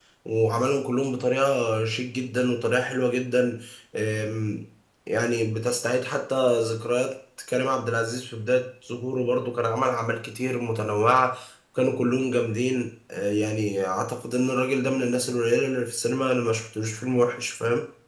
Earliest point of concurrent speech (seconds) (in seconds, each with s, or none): none